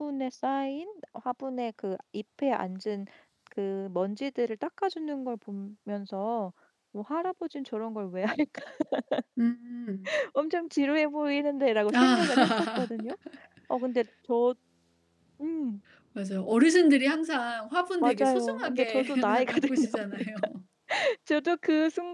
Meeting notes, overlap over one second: present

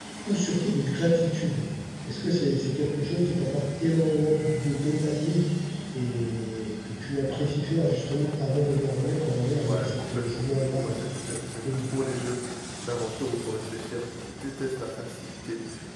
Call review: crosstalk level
present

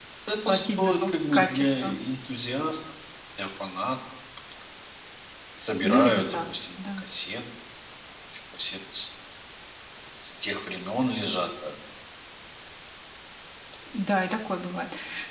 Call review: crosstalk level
present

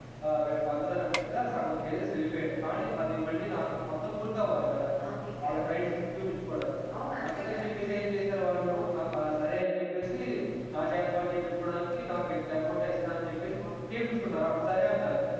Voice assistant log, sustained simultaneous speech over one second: none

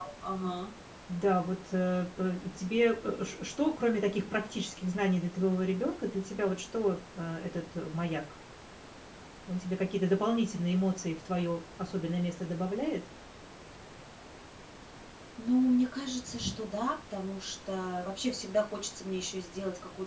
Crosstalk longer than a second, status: none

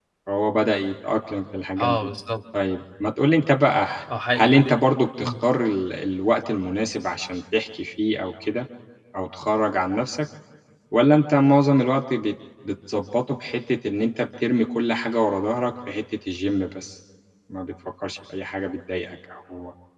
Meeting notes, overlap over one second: none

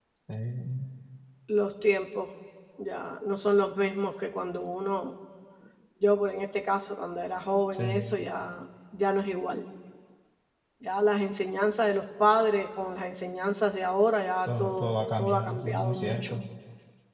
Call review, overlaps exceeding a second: present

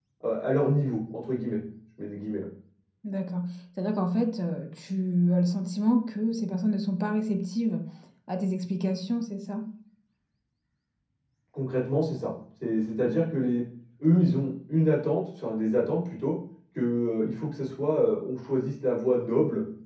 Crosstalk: none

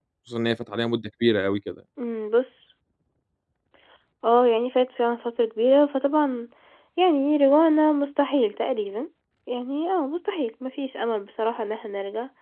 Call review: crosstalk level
none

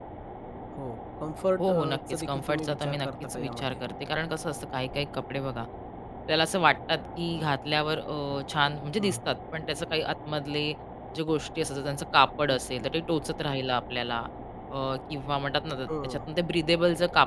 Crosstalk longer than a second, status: present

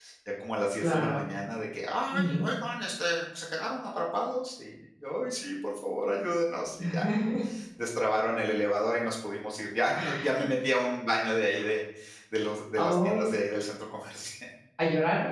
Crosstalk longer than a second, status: none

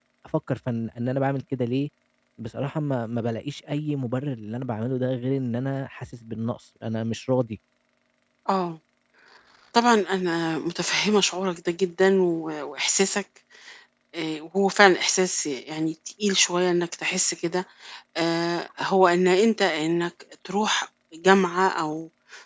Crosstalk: none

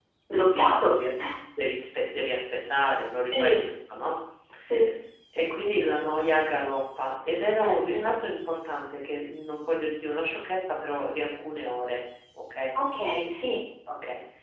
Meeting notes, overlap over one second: none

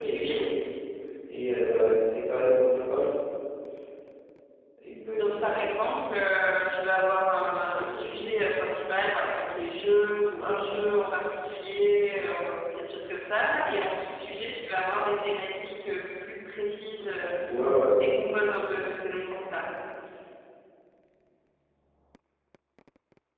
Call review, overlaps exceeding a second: none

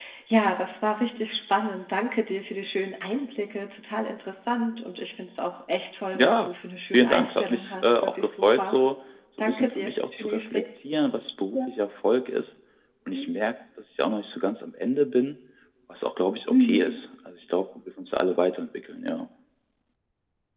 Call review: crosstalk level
present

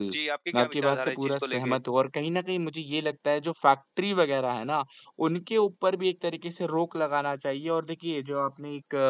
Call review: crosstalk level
present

